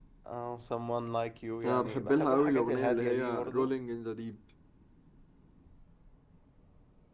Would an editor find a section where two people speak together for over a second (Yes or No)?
Yes